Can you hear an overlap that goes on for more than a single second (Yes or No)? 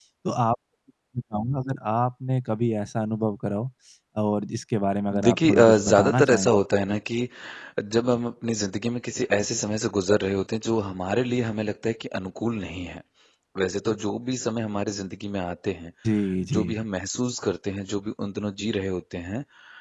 Yes